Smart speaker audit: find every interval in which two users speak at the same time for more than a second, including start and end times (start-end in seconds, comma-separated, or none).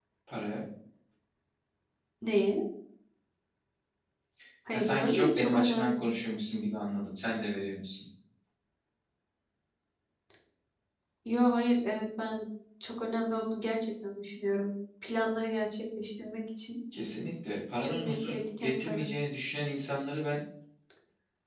4.7-6.3, 17.8-19.1